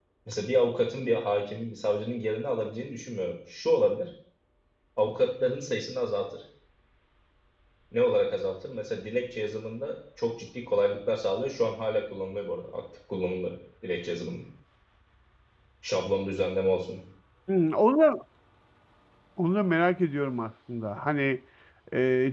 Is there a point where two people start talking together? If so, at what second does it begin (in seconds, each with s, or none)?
none